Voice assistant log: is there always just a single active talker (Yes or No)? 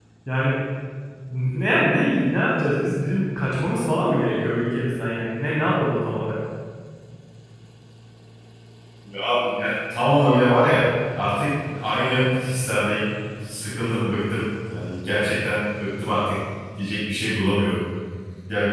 Yes